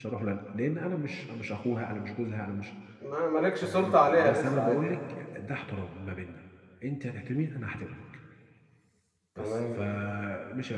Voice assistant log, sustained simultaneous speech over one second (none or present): present